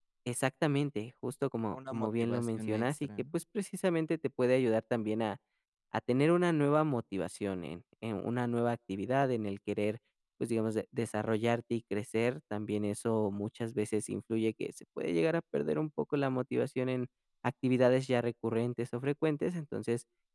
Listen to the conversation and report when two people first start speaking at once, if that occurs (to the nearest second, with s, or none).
2 s